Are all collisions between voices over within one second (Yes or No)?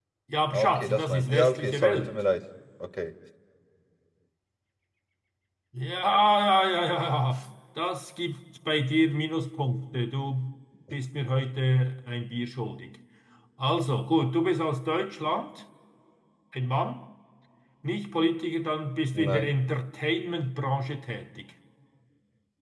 No